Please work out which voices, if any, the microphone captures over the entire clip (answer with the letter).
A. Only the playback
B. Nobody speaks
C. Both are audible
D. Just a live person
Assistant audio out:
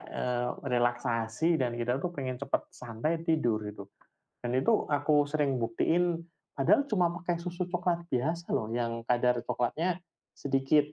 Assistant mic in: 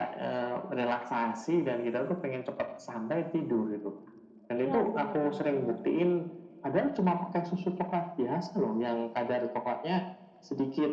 C